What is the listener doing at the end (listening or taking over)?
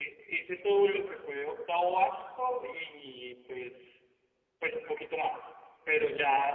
listening